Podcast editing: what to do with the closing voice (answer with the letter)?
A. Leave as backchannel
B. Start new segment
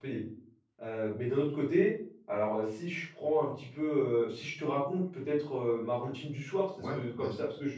A